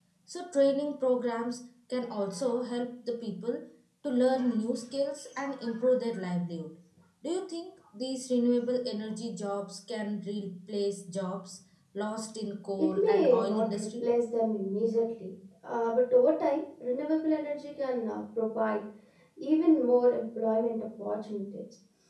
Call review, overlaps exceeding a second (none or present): present